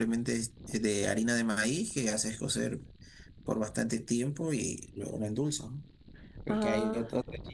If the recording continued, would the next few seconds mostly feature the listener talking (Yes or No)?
No